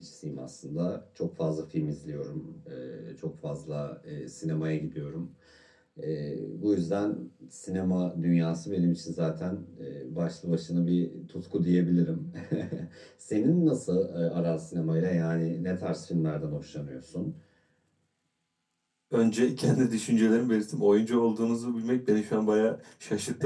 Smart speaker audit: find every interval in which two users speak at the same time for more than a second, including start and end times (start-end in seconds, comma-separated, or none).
none